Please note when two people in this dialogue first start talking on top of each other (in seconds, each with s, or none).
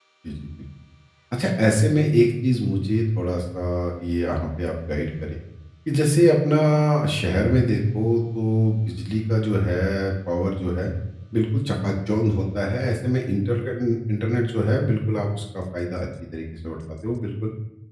none